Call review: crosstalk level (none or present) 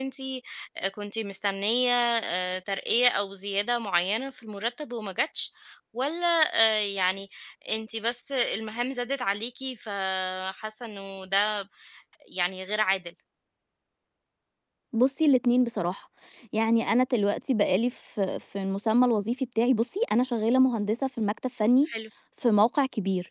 none